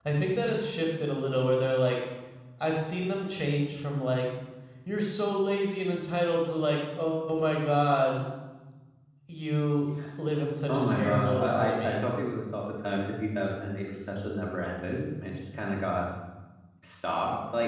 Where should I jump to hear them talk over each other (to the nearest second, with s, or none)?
11 s